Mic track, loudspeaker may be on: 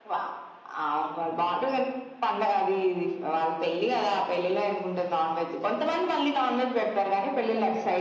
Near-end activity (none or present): present